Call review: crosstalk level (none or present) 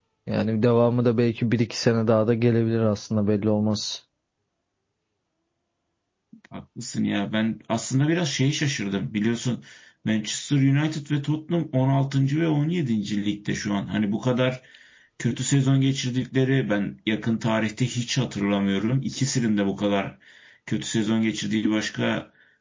none